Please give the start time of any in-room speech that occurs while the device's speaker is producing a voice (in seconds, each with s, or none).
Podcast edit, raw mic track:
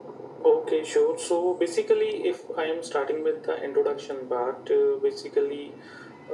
none